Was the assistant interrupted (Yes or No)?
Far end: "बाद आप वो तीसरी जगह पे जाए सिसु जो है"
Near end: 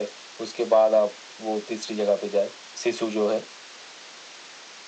No